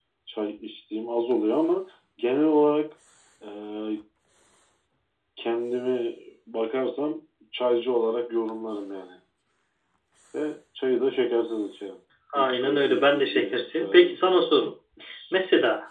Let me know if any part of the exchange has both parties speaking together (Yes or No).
Yes